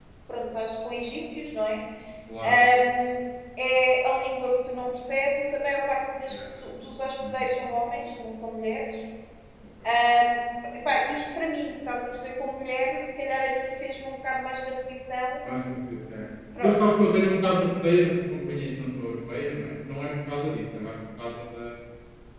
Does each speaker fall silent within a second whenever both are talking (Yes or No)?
Yes